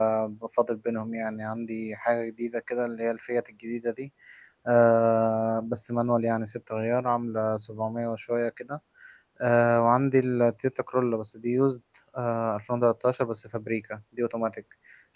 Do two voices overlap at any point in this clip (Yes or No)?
No